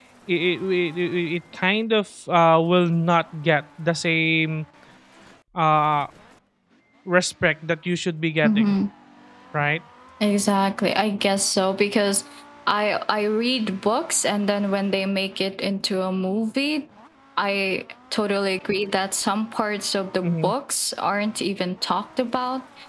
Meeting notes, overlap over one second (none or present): none